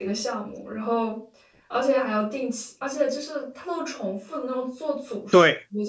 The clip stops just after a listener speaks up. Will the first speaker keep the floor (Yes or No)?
No